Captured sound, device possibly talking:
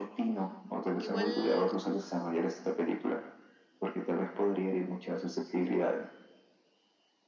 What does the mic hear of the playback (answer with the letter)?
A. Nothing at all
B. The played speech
B